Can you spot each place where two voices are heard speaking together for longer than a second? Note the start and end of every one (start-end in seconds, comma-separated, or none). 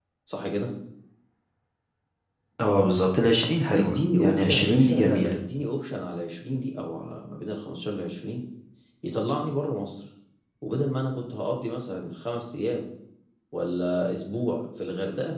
3.7-5.4